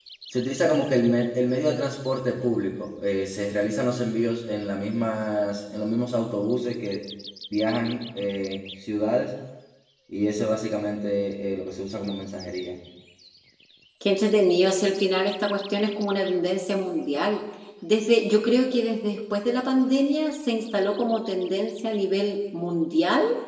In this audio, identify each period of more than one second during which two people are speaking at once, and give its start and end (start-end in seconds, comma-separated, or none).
none